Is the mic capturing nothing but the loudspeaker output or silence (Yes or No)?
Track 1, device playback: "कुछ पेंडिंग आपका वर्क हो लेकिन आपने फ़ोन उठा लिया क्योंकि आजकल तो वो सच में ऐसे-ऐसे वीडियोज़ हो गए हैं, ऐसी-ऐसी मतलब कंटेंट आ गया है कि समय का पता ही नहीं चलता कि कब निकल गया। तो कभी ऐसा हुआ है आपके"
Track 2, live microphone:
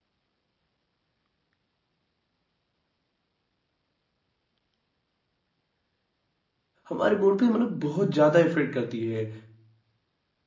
No